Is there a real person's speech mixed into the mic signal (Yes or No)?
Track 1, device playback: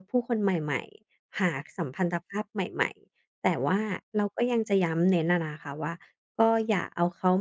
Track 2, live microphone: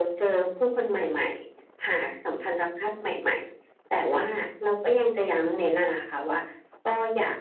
No